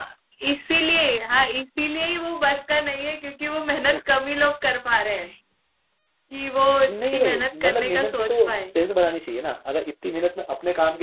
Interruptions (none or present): present